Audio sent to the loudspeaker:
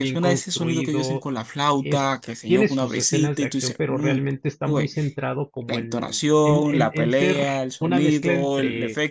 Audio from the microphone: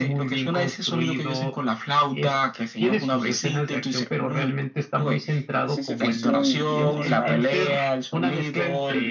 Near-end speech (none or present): present